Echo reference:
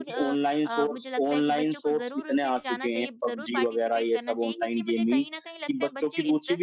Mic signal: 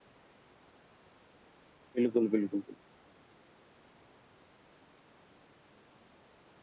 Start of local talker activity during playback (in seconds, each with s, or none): 2.0 s